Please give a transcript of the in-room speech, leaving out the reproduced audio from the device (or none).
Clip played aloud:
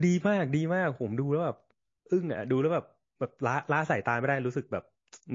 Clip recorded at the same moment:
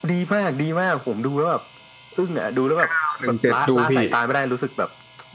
เก้าหนึ่งเจ็ดดูพี่